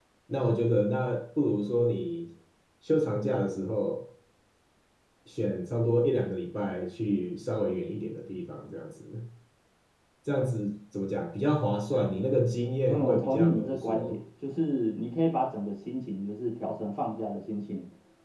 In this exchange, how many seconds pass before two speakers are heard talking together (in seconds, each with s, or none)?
12.9 s